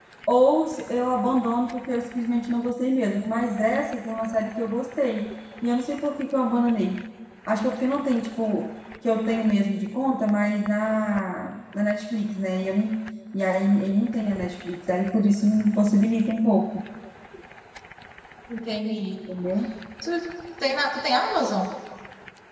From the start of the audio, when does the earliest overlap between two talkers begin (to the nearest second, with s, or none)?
none